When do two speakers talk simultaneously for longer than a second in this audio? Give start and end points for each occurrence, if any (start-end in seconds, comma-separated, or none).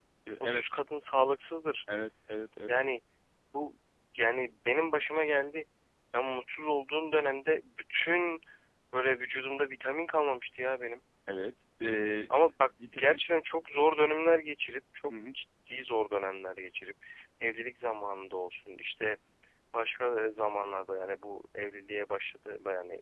none